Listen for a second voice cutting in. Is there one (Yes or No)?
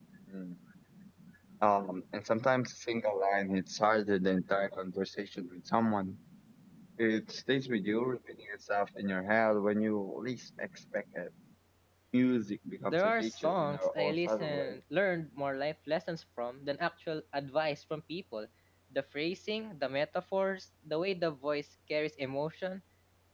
Yes